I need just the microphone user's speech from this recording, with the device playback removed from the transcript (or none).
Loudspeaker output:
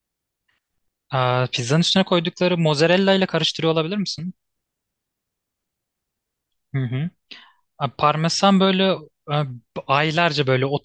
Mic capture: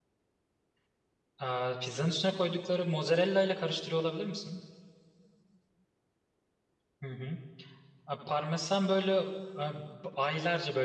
none